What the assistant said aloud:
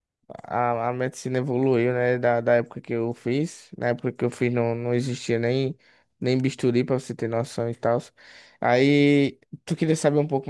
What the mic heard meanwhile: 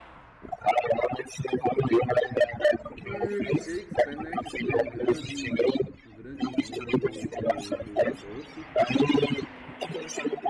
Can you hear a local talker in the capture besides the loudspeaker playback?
Yes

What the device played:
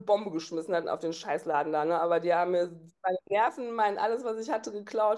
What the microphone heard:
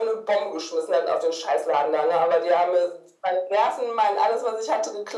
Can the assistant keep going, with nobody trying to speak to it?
Yes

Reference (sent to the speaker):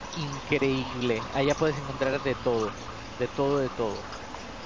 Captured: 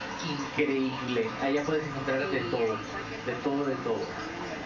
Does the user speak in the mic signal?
Yes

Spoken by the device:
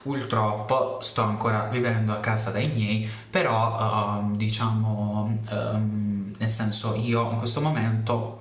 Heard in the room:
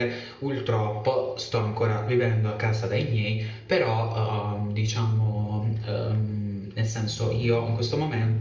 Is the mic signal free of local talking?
Yes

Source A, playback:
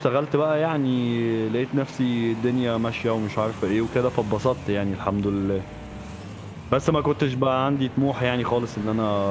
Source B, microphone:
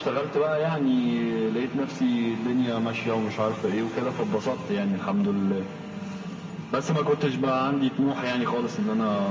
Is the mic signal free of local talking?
Yes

